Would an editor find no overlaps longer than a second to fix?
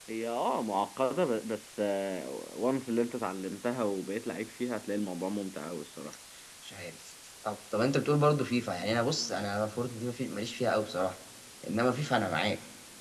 Yes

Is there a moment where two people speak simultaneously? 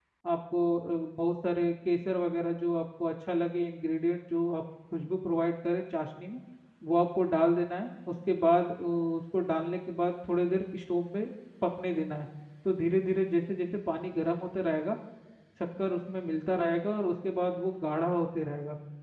No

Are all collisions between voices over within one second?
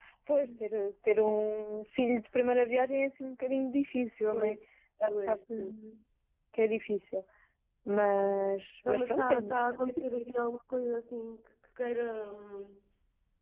No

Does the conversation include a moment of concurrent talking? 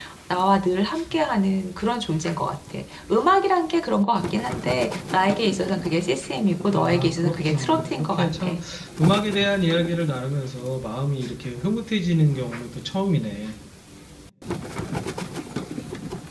Yes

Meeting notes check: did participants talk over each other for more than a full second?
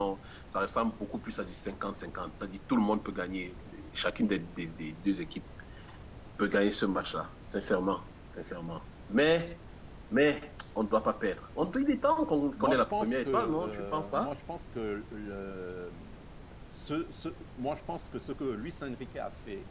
Yes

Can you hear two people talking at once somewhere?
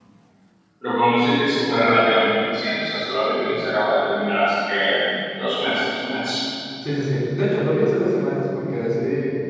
No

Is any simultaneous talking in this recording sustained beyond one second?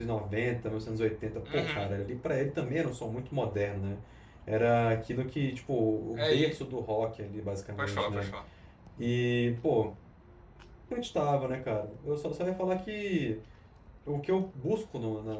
No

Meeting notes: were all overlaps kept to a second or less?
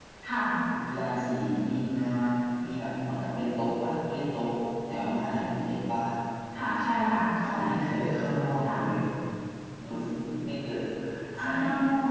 Yes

